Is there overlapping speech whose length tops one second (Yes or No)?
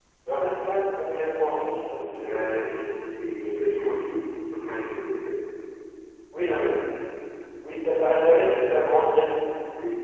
No